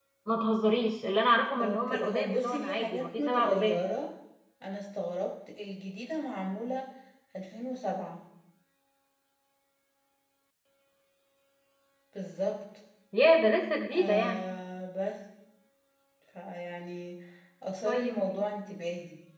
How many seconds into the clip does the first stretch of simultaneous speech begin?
1.6 s

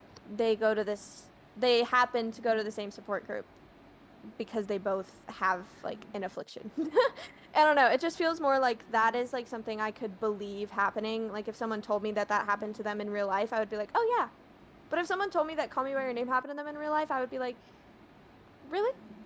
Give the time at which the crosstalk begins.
none

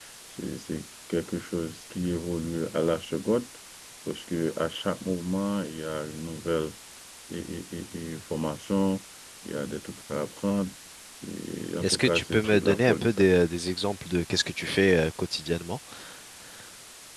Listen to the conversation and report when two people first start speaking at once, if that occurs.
11.8 s

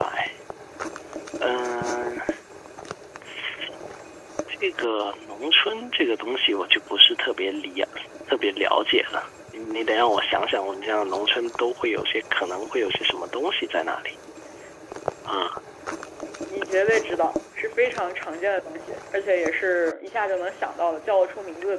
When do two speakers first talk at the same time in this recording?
none

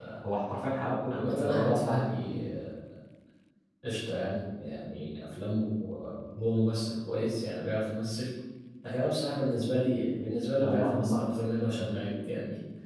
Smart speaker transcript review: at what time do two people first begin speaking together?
1.1 s

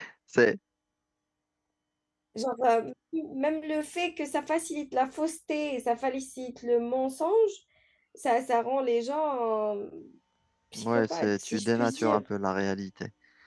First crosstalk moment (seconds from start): 10.8 s

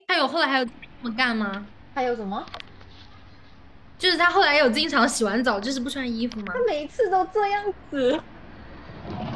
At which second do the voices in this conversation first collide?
none

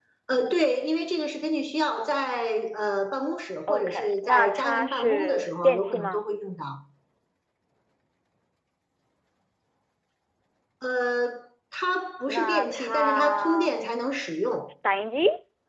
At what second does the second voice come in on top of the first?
3.7 s

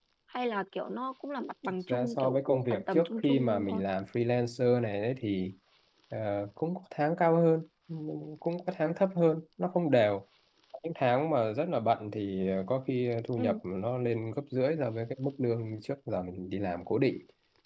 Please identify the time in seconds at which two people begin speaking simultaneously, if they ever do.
1.6 s

